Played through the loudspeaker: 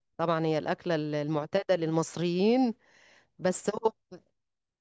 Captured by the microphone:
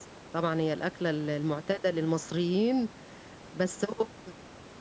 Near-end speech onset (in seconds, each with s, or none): none